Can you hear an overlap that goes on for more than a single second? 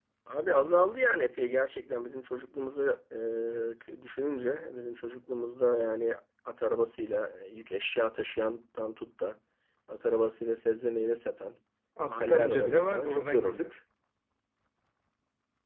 Yes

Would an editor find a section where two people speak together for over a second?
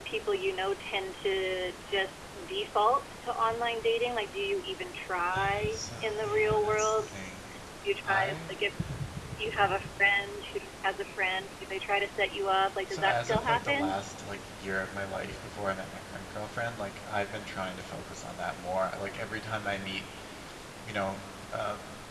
Yes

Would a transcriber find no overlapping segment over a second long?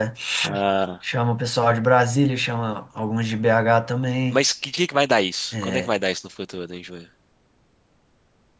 Yes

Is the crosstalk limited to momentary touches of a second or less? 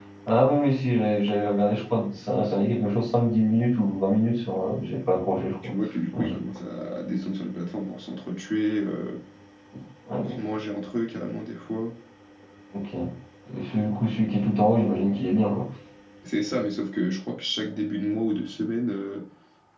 Yes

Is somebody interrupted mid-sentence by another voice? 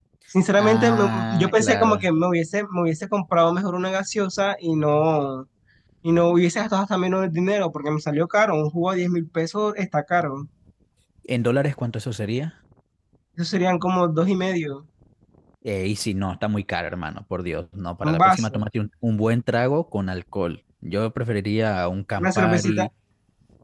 Yes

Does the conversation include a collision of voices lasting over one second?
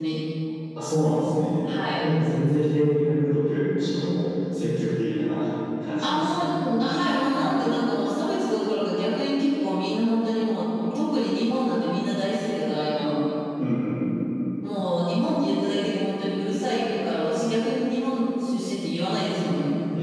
No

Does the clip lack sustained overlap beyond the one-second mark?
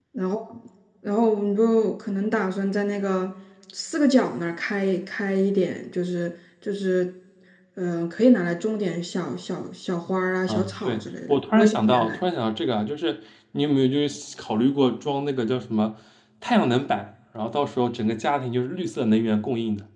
No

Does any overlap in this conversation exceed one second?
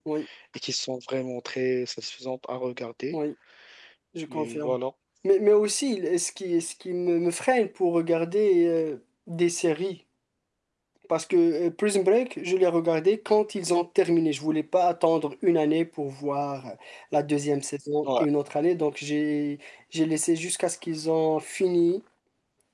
No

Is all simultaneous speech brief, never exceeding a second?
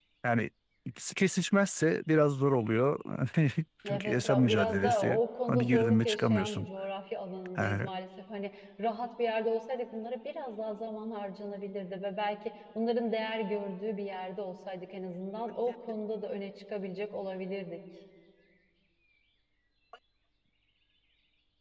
No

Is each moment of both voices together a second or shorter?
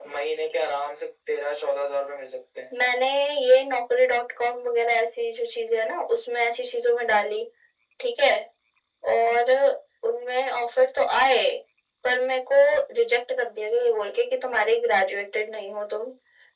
Yes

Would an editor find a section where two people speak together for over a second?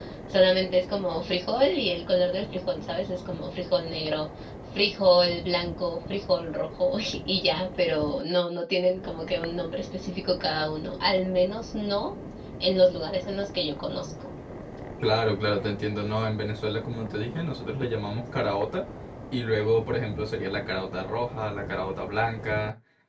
No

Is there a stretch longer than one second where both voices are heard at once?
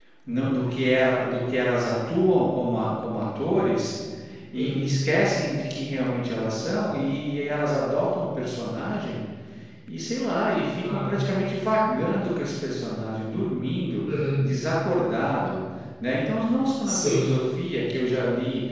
No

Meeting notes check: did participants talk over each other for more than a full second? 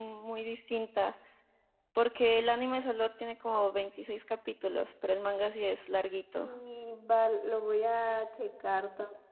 No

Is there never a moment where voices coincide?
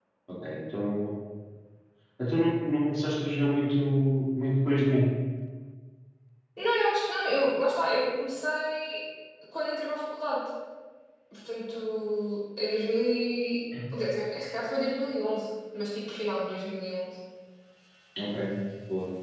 Yes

